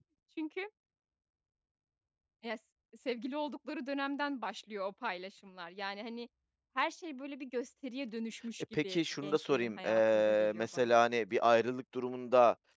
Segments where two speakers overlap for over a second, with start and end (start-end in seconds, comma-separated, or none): 8.8-10.9